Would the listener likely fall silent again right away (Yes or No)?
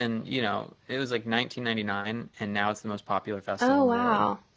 No